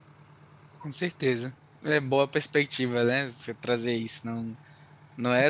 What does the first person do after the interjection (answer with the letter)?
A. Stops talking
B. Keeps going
B